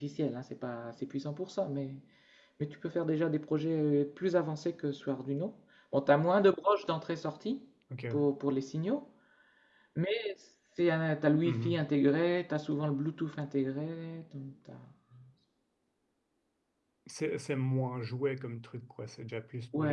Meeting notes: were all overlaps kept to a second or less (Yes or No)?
Yes